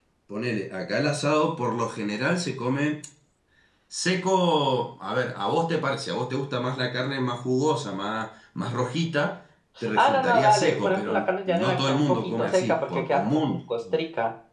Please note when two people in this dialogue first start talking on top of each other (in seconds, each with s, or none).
9.8 s